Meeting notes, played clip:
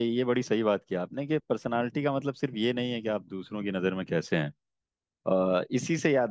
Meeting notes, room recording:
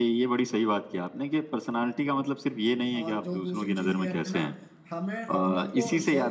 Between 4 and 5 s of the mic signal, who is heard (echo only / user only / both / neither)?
both